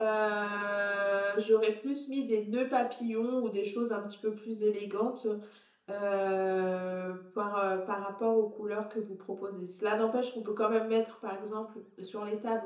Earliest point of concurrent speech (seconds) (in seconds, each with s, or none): none